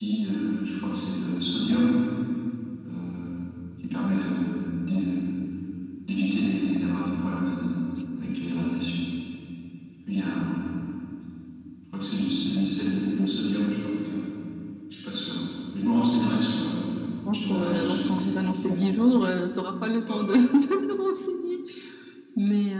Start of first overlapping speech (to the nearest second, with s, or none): 17 s